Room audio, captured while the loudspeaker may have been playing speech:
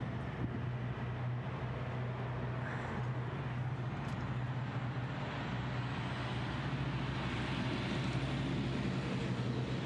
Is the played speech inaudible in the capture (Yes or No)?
Yes